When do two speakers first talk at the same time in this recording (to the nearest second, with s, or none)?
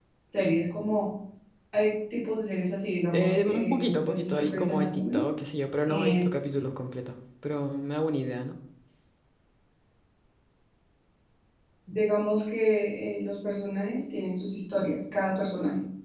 3 s